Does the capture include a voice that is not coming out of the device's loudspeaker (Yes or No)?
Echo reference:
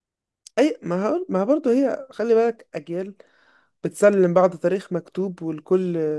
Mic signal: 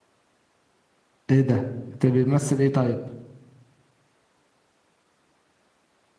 Yes